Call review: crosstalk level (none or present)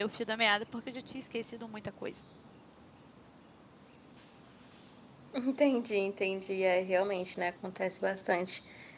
none